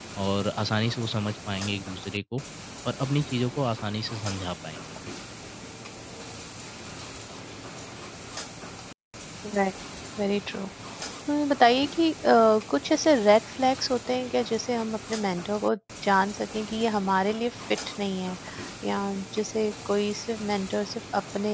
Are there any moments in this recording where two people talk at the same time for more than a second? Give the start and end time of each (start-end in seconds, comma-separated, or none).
none